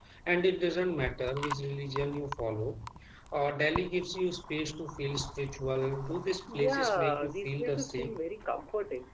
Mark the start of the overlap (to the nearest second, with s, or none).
6 s